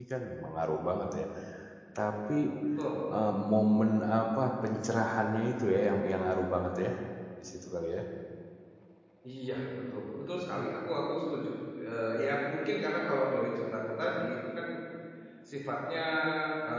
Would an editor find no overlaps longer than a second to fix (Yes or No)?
Yes